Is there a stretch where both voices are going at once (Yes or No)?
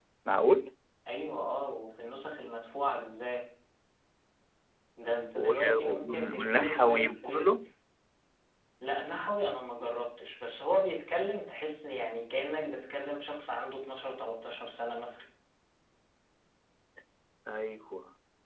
Yes